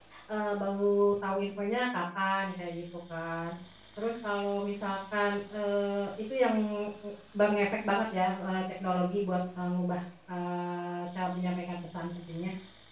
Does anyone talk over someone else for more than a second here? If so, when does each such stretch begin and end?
none

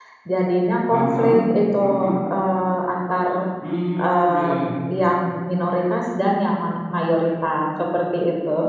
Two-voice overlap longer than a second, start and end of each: none

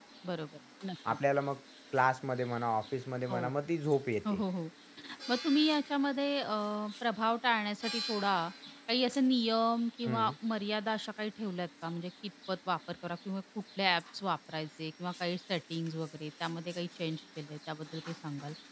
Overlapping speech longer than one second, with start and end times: none

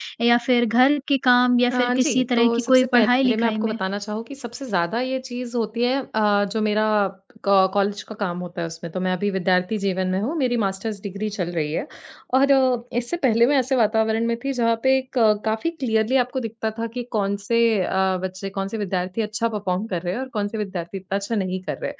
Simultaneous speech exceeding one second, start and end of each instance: 1.7-3.8

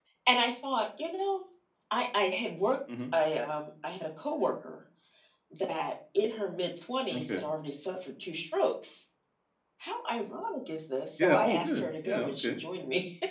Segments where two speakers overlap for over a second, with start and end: 11.2-12.6

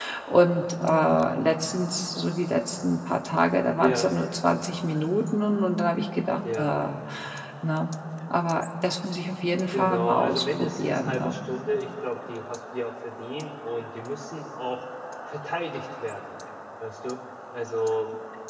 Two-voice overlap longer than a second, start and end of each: 9.7-11.4

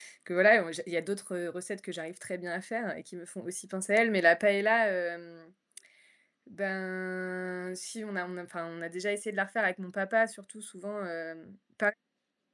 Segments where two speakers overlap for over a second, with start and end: none

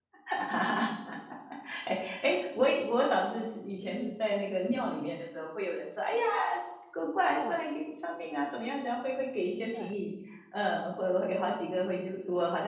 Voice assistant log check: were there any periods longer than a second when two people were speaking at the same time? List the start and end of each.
none

